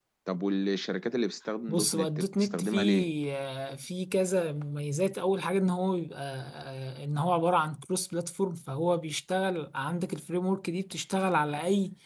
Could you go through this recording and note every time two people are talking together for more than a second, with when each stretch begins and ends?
1.7-3.1

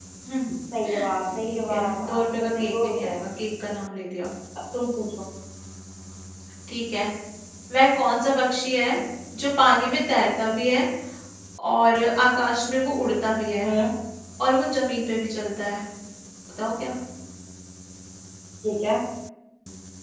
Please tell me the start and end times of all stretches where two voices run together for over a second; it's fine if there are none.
1.3-3.2

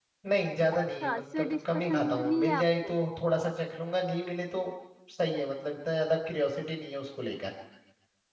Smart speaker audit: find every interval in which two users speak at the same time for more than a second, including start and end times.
1.0-2.9

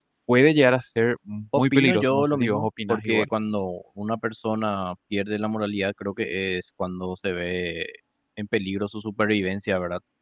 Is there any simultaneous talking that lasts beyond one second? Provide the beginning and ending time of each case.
1.6-3.2

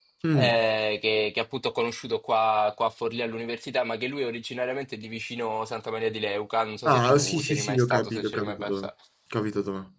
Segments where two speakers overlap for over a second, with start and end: 6.8-8.9

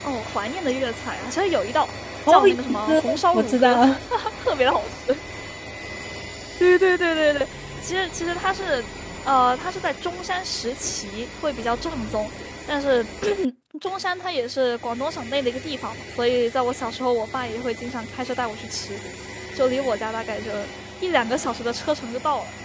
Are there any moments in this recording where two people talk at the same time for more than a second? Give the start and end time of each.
2.3-3.8

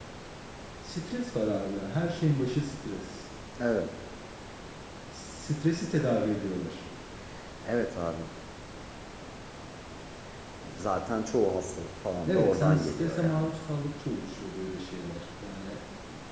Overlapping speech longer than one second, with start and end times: 12.2-13.5

